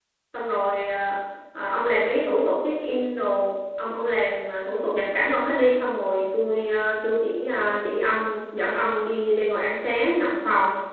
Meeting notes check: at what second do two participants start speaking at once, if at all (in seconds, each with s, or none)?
none